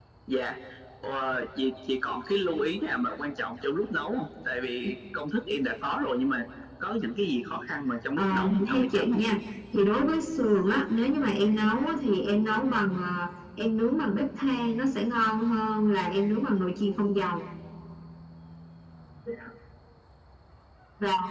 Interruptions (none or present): present